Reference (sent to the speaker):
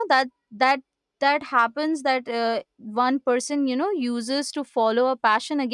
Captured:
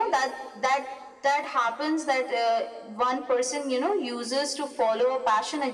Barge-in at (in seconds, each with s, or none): none